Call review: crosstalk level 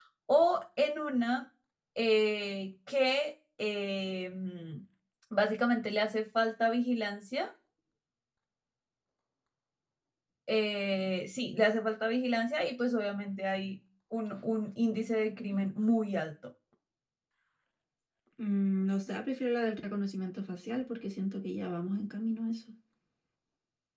none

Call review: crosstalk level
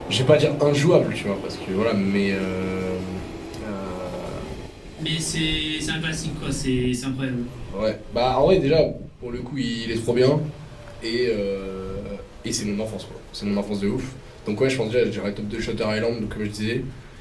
none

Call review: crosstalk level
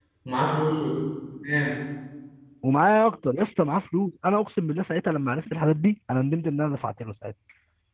none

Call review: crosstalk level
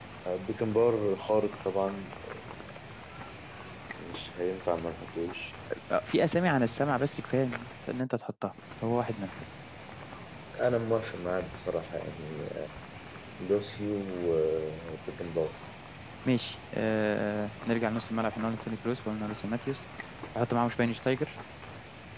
none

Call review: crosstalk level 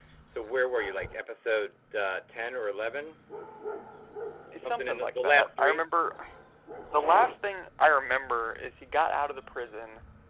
present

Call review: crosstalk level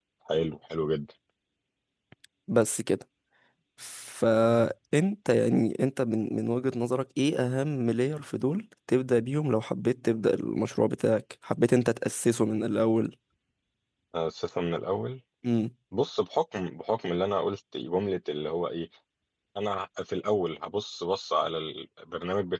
none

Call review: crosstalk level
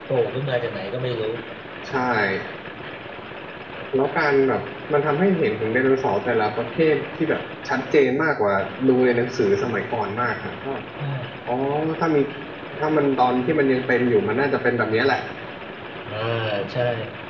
none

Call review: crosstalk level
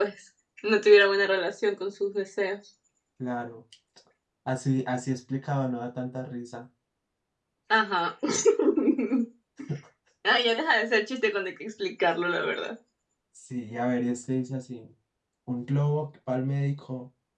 none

